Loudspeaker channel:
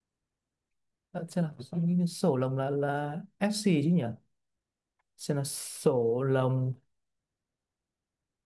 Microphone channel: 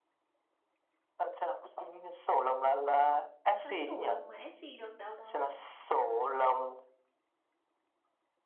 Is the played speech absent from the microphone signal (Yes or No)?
No